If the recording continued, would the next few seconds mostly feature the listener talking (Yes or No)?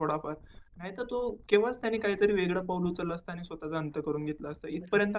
Yes